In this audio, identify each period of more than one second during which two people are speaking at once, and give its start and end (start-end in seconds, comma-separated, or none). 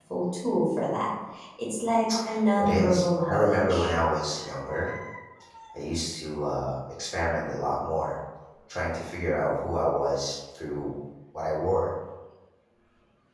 2.6-3.9